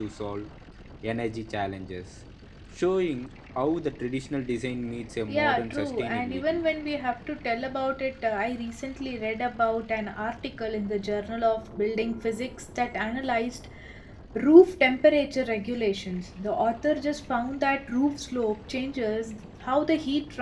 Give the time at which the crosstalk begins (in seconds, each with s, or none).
5.3 s